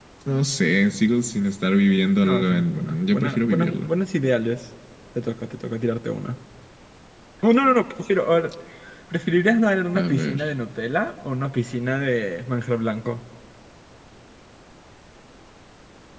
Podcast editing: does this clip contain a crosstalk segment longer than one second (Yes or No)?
Yes